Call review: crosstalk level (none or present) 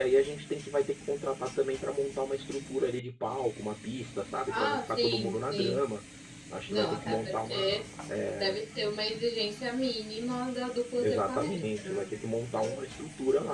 present